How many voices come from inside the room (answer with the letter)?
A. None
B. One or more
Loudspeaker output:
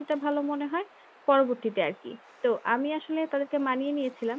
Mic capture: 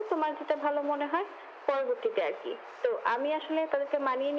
A